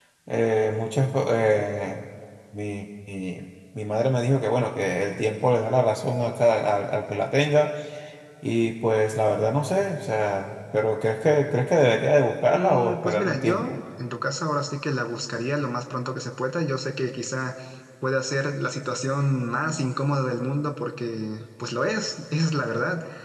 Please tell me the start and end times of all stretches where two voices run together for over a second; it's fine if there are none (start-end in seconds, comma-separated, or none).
12.5-13.8